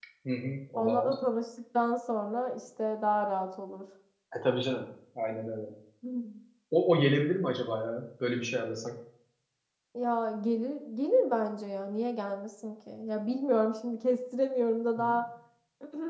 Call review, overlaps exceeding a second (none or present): none